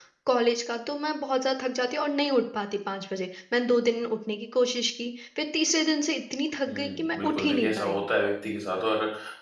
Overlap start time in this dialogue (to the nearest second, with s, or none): 7 s